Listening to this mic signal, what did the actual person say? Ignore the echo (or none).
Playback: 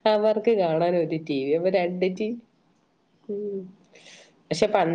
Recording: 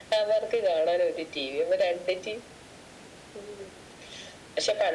none